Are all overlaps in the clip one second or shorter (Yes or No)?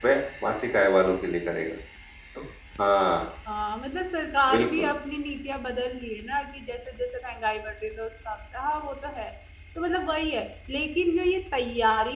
Yes